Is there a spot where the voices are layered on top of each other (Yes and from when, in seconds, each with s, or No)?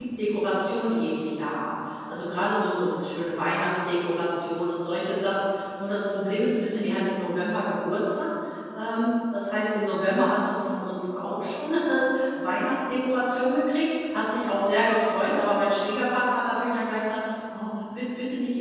No